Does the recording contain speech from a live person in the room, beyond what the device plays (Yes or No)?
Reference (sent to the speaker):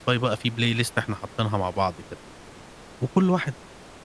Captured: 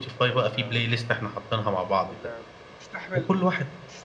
Yes